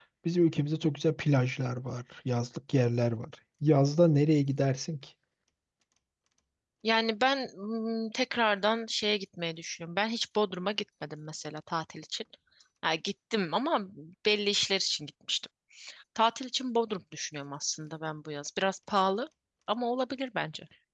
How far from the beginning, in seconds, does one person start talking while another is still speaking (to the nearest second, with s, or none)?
none